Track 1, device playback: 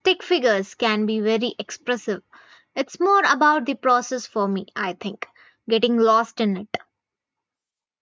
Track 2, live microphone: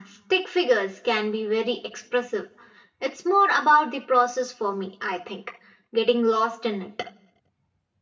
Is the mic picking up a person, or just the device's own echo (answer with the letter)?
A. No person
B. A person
A